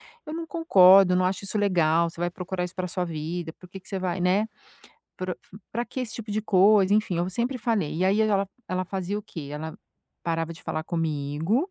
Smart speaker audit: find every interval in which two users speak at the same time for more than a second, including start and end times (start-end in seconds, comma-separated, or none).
none